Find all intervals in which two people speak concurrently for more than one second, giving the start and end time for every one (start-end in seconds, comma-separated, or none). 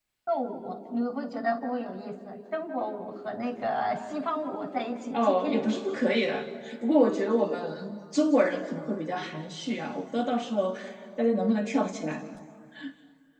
none